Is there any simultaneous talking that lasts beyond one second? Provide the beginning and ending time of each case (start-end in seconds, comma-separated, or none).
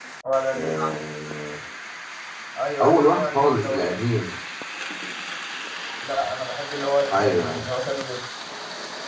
2.8-4.0